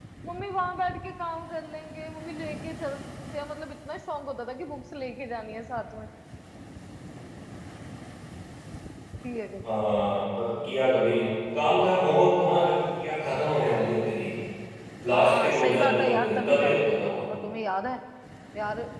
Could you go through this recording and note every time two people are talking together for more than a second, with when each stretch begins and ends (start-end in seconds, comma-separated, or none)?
15.1-17.1